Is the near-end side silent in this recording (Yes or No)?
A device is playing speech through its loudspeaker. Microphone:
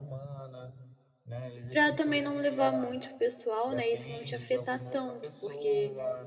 No